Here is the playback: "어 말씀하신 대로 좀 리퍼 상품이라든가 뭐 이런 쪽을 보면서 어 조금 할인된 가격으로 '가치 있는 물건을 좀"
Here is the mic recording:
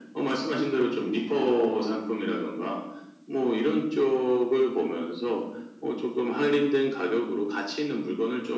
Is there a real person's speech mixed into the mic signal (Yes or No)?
No